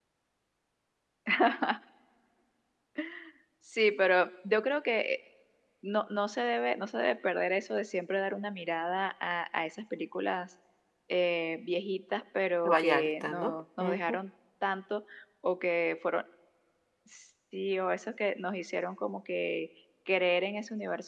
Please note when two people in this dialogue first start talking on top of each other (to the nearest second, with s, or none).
13 s